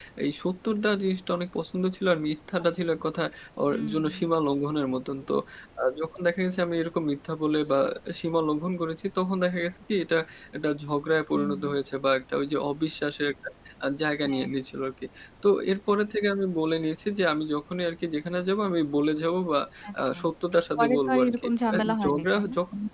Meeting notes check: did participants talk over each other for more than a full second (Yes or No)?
Yes